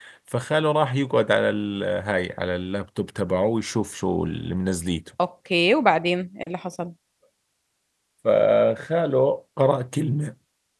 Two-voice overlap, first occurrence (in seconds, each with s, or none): none